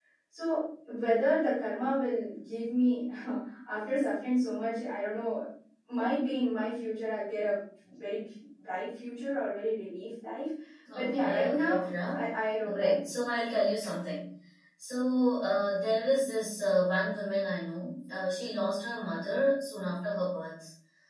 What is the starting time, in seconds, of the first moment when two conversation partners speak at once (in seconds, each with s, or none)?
10.9 s